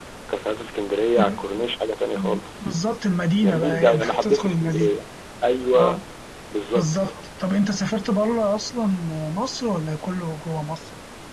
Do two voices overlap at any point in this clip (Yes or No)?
Yes